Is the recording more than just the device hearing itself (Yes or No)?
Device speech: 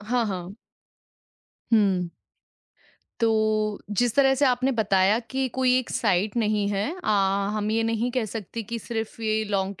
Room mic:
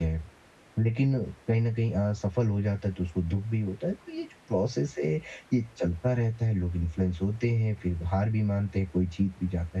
Yes